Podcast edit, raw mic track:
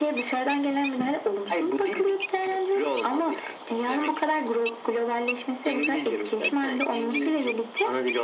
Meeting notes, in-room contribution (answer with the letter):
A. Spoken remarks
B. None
B